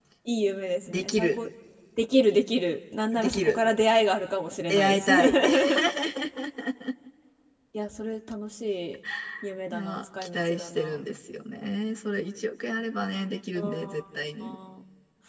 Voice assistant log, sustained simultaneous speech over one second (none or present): present